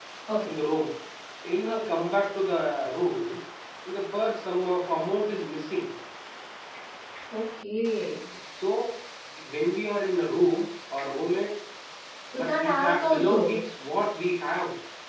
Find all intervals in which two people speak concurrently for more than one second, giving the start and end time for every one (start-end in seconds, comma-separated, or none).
12.3-13.6